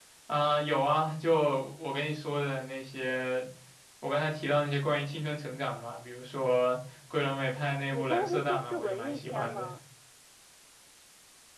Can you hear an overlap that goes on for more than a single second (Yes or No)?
Yes